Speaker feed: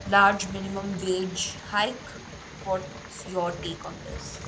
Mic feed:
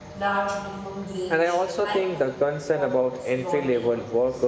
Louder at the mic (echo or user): user